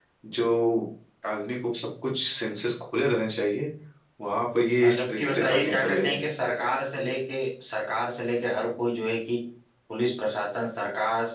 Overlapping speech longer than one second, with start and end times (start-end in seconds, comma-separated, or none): 4.8-6.2